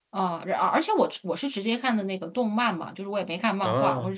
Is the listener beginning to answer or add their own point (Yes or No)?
No